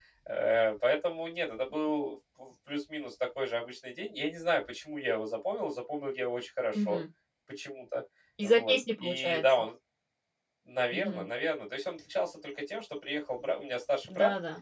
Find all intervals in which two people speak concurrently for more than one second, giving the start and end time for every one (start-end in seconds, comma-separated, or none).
8.4-9.6